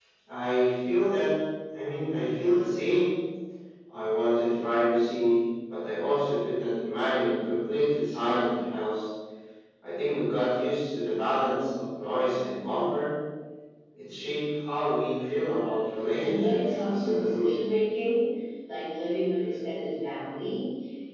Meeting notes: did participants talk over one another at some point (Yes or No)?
Yes